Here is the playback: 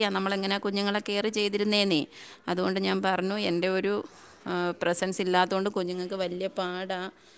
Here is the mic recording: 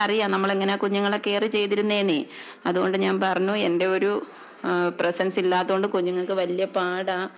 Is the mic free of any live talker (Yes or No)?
Yes